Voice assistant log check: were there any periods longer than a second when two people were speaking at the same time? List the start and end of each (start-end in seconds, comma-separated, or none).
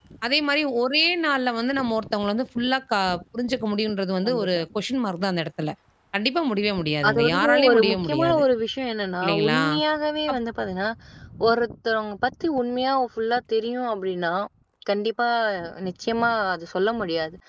7.1-8.4